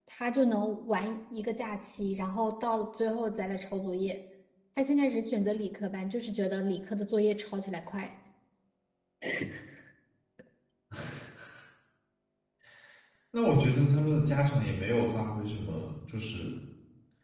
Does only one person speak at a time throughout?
Yes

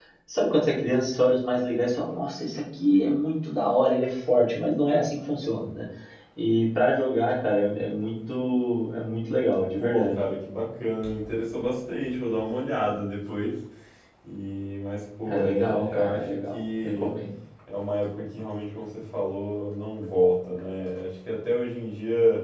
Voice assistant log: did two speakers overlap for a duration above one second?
Yes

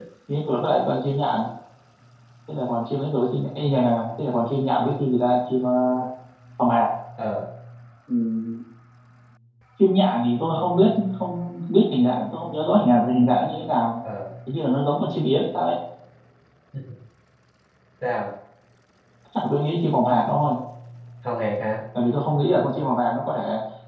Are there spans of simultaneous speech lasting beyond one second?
No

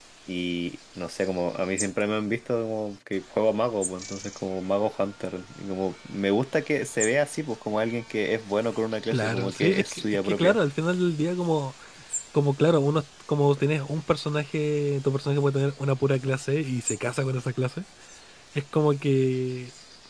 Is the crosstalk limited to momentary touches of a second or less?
No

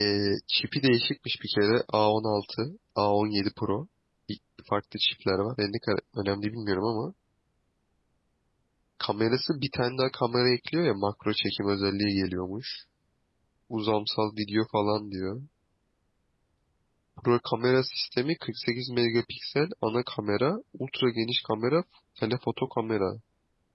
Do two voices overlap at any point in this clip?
No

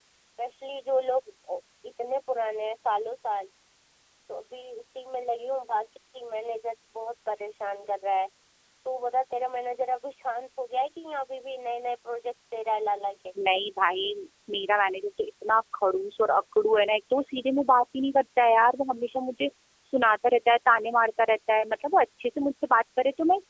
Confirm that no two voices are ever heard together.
Yes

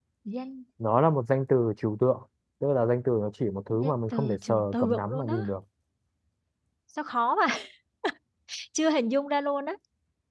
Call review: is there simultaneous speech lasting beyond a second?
Yes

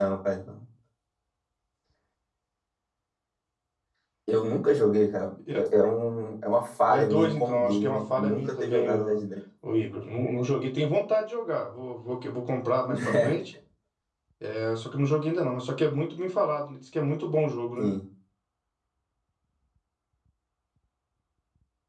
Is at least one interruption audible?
Yes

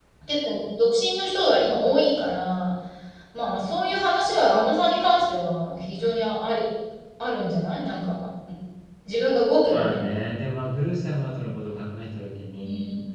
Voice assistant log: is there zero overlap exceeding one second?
Yes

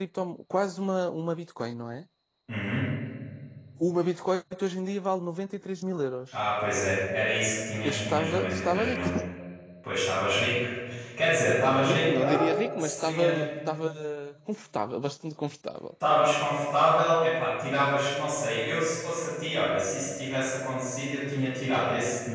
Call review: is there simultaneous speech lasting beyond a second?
Yes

